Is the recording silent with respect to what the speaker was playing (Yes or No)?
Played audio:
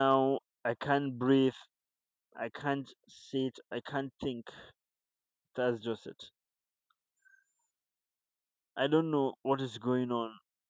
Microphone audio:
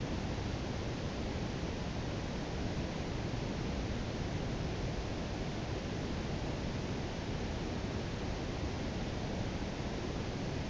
Yes